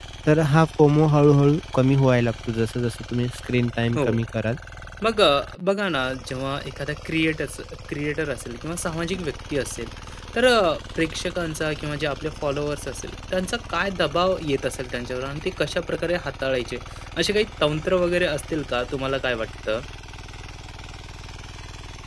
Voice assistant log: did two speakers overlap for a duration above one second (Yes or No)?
No